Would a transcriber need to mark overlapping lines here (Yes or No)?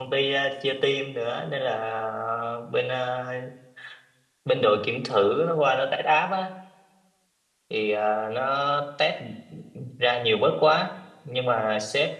No